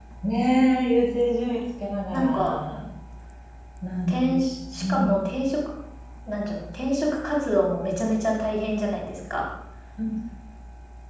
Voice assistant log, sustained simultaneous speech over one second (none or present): none